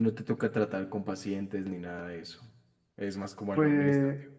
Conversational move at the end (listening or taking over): taking over